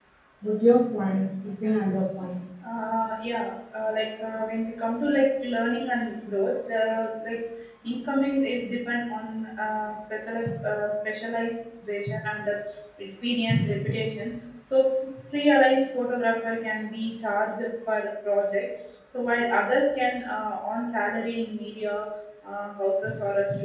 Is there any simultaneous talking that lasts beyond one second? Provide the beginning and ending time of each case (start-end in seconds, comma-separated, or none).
none